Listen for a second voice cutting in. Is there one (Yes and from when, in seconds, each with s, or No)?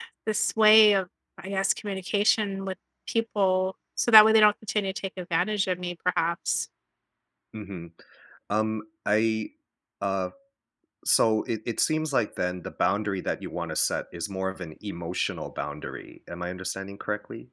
No